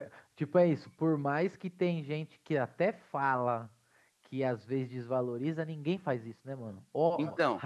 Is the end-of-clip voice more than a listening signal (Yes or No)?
No